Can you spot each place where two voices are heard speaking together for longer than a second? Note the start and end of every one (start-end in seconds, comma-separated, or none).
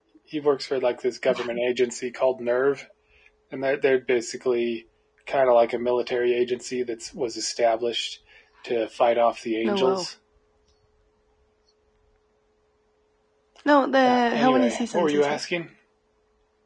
14.0-15.4